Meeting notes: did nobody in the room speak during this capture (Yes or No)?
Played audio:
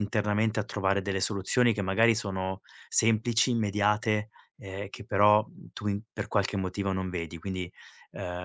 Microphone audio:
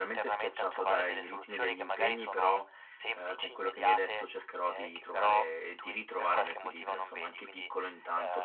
No